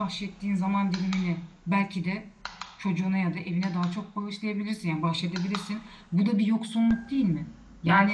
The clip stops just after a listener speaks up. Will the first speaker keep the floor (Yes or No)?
No